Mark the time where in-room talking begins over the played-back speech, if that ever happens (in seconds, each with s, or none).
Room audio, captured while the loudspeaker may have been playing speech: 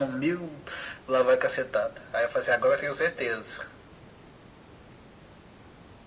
none